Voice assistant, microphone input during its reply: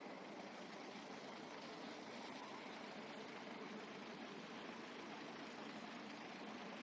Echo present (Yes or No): No